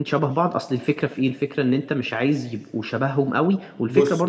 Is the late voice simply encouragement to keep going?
Yes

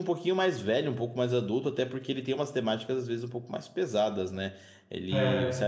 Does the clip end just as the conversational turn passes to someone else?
No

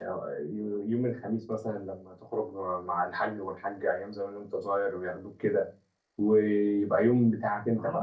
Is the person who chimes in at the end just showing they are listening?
No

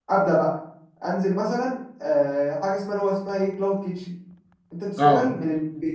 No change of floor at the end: Yes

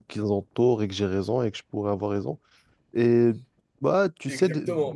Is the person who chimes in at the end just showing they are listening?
No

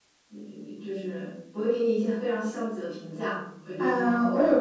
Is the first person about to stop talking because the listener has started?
Yes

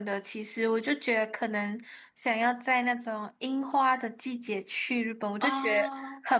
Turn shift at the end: No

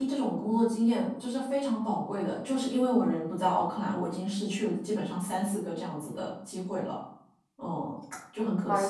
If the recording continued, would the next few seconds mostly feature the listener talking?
Yes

